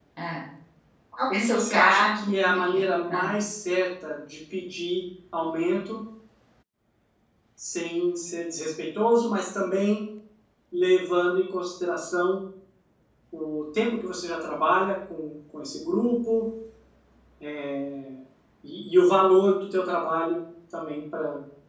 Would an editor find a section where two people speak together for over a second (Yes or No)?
Yes